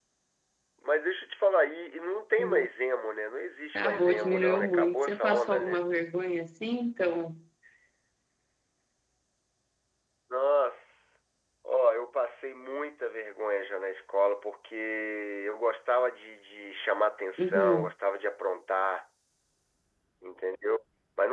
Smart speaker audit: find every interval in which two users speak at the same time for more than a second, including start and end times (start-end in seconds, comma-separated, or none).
3.8-5.8